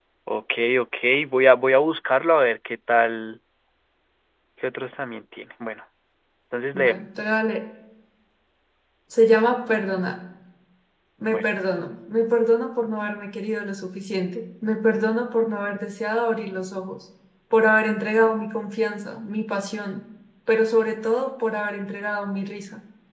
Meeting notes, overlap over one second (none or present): none